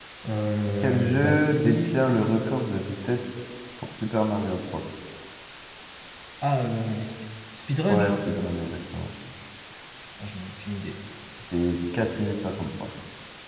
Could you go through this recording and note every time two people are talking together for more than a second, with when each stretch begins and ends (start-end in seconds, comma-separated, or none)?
0.8-2.1